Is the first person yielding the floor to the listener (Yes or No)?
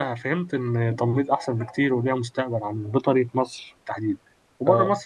No